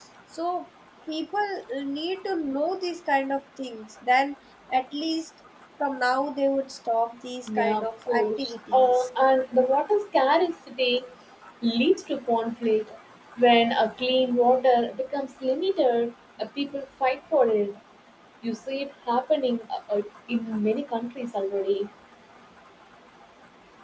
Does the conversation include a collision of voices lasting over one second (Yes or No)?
Yes